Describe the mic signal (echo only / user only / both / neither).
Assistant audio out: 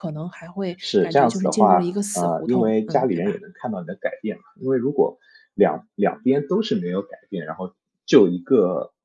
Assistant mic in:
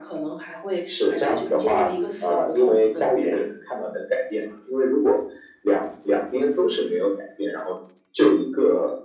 echo only